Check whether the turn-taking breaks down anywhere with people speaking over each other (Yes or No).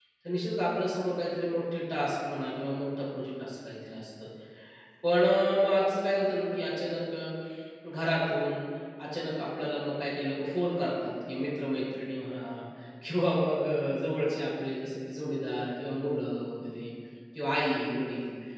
No